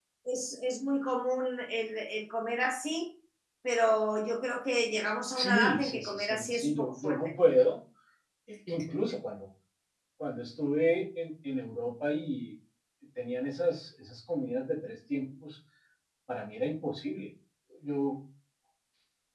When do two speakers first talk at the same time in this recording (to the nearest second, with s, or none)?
5 s